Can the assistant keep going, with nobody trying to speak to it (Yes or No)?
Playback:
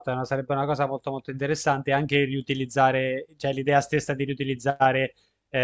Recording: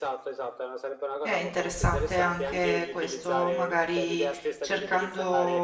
No